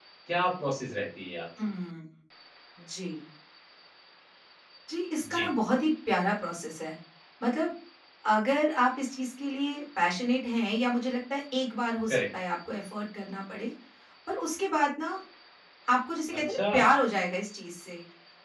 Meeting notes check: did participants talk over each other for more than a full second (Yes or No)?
No